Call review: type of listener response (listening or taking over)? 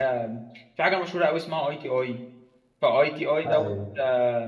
listening